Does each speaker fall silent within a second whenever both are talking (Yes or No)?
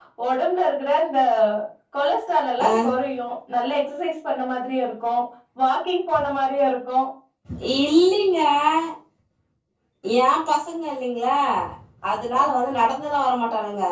Yes